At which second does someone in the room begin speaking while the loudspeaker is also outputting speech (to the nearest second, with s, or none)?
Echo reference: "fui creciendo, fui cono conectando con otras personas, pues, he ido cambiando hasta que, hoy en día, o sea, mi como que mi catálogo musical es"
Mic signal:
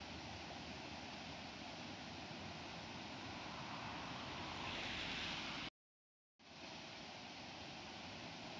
none